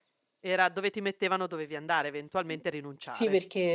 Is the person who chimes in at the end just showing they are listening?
No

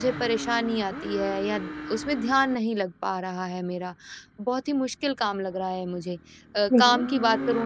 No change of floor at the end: Yes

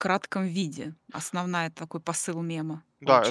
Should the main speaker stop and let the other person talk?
Yes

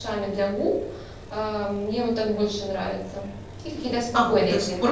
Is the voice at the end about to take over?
Yes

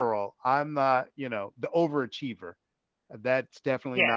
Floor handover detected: No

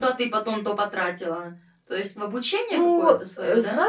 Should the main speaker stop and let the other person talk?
Yes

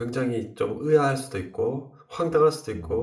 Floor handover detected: No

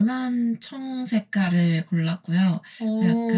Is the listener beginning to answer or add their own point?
No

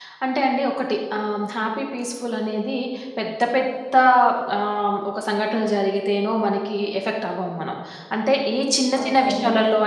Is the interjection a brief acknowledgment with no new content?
Yes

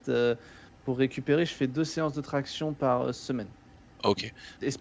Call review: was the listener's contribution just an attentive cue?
No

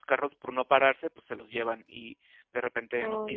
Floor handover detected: No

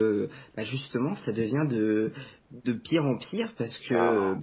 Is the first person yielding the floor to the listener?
No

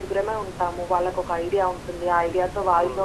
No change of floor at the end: Yes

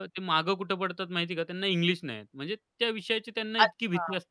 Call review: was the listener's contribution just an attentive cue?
No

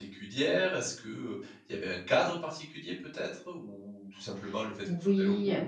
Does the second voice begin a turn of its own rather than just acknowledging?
Yes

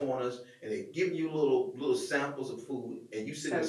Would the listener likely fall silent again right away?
Yes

